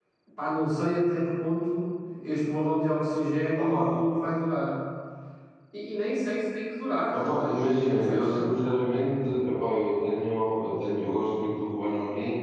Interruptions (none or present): present